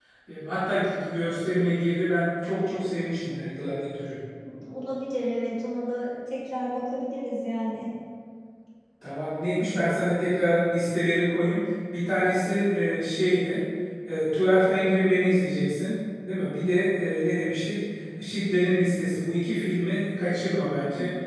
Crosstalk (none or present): none